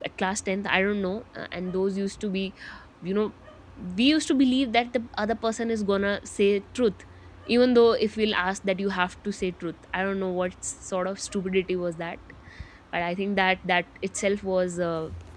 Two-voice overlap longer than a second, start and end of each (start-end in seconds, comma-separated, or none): none